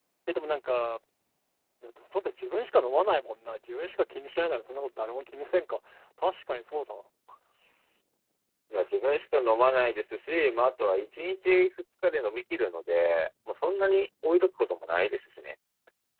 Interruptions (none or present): none